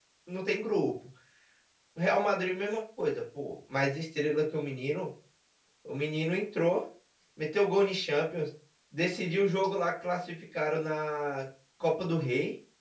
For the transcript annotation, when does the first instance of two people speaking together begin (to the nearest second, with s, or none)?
none